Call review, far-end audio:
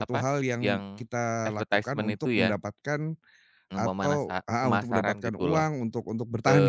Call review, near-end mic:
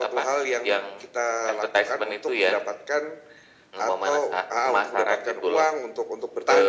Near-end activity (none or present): none